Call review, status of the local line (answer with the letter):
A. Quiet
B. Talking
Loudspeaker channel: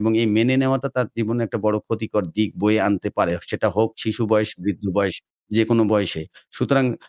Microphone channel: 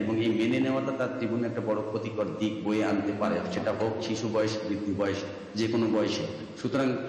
B